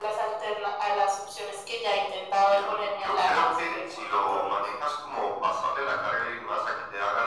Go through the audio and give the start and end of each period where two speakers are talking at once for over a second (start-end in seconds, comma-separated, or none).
2.5-4.5